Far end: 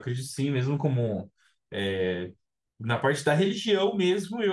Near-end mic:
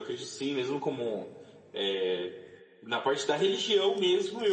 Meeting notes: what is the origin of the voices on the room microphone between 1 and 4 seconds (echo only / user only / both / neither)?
echo only